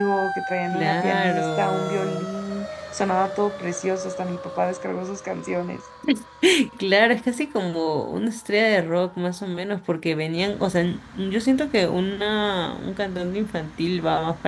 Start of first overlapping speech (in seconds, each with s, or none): 0.7 s